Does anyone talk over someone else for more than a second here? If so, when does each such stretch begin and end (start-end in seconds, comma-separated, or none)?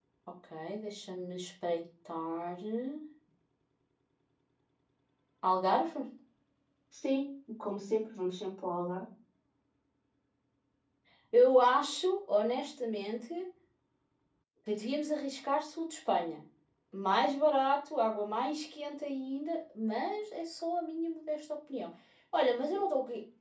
none